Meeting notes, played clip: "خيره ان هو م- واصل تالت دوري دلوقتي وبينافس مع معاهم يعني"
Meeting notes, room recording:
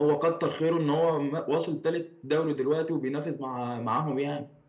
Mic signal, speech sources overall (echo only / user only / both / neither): echo only